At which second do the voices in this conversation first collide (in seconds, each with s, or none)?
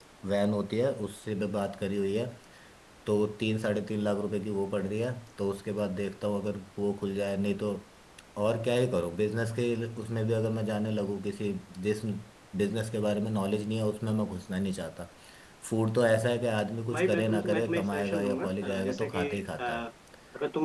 16.9 s